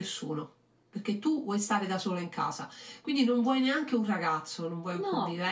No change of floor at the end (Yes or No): Yes